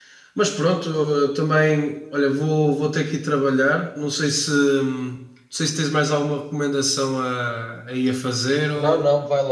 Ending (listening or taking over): taking over